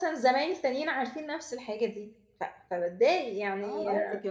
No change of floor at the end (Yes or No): No